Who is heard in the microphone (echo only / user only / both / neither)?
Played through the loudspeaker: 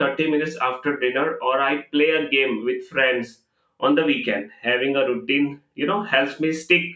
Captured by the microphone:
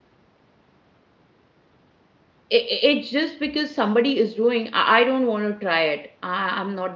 user only